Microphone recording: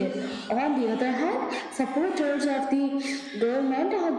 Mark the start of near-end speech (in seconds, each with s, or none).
none